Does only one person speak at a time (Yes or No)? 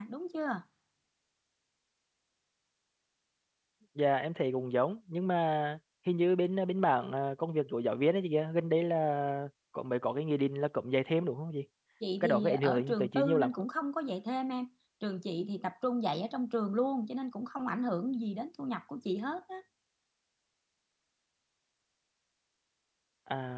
No